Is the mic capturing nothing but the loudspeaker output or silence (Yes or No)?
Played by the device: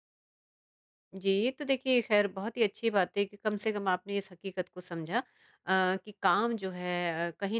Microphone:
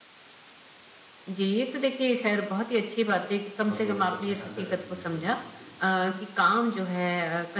No